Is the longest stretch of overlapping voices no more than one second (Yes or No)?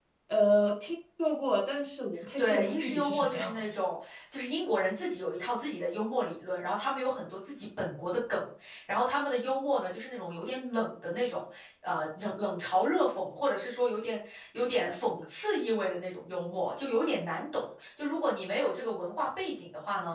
No